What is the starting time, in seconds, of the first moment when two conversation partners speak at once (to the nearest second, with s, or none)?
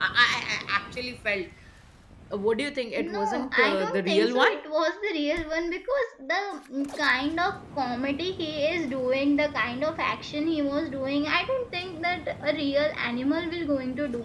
3 s